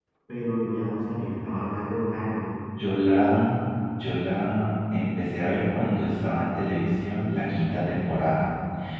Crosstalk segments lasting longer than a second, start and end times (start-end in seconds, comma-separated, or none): none